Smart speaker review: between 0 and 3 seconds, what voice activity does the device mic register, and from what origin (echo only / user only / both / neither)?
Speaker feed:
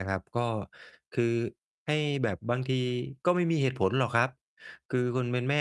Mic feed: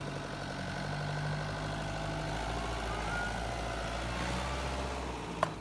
neither